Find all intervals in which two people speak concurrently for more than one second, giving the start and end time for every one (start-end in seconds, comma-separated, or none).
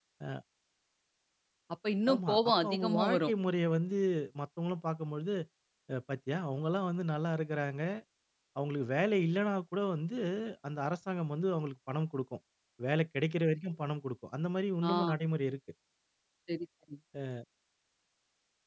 2.1-3.3